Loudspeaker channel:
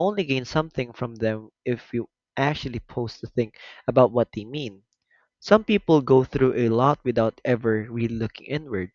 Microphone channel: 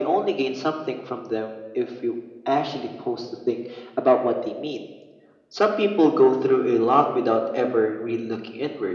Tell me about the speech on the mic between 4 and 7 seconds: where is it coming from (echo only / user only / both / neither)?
echo only